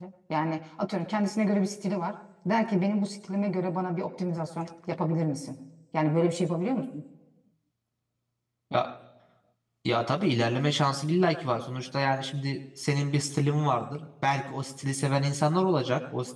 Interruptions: none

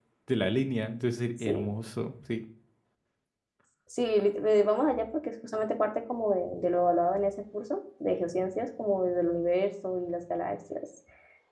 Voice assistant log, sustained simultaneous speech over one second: none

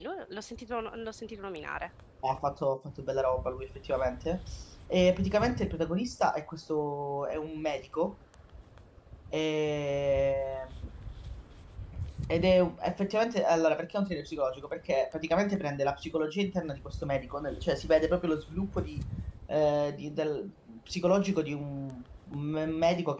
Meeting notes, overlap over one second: none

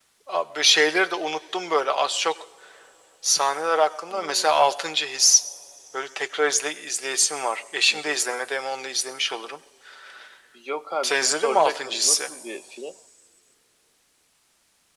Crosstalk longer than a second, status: present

